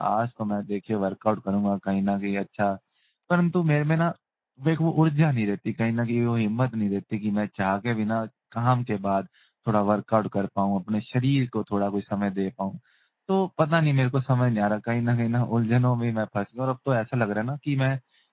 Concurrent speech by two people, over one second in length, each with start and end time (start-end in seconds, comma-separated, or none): none